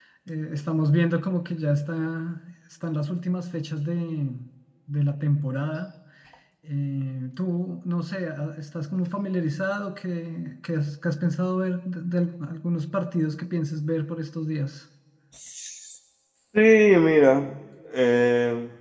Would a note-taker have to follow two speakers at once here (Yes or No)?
No